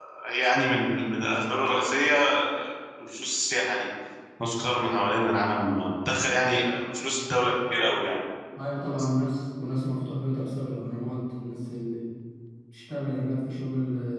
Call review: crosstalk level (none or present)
none